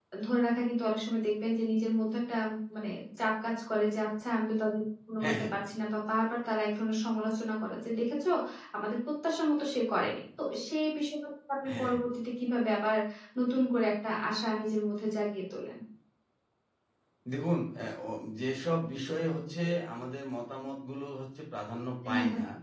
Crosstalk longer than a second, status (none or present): none